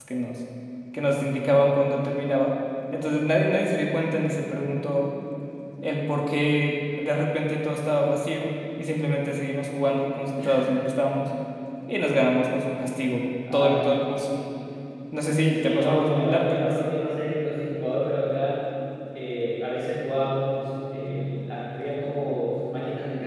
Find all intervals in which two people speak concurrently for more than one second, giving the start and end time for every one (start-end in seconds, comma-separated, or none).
15.5-16.8